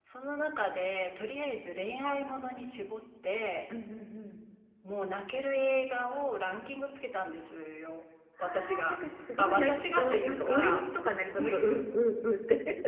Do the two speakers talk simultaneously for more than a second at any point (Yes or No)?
Yes